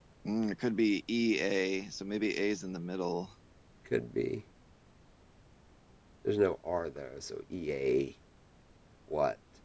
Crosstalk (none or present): none